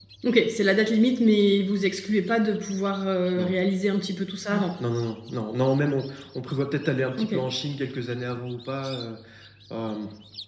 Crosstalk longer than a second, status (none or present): none